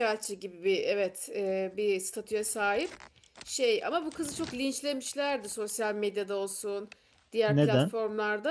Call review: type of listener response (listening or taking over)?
listening